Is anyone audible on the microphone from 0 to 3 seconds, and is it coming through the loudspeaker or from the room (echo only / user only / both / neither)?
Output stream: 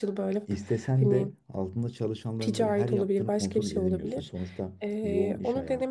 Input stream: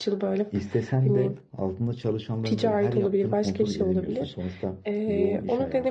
echo only